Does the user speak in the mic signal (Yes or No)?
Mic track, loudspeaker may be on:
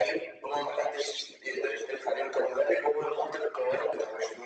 No